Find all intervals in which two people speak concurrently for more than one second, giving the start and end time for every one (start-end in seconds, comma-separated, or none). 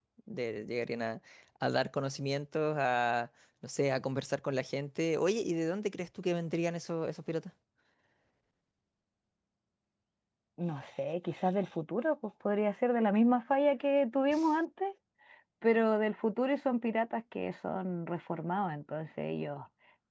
none